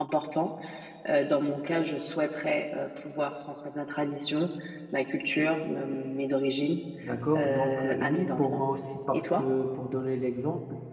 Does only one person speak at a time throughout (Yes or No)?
No